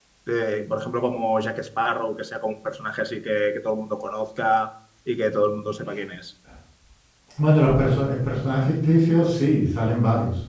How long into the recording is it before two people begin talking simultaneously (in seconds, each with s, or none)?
none